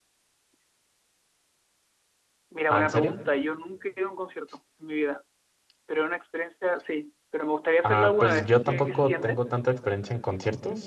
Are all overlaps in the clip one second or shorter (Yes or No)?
No